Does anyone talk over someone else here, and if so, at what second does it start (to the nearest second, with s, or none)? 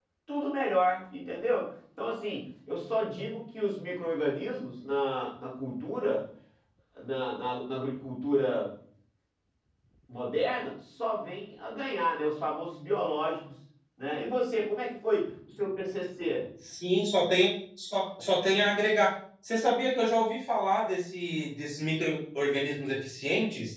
none